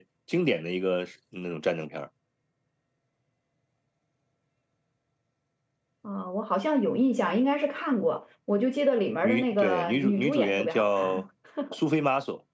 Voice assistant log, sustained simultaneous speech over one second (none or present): present